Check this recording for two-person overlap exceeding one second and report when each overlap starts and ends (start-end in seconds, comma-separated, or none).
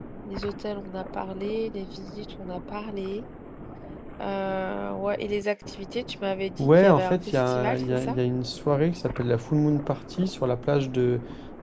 6.6-8.2